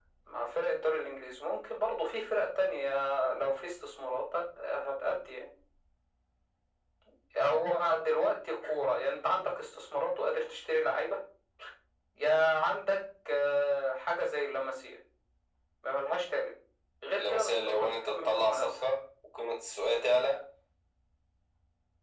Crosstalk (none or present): present